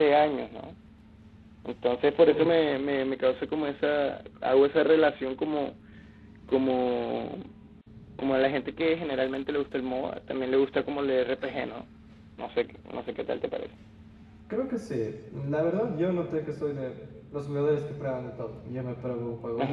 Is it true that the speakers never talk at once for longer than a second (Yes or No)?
Yes